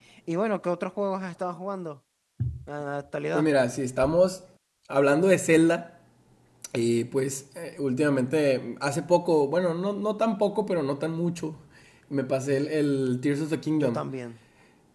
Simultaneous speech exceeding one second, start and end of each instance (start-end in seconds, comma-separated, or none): none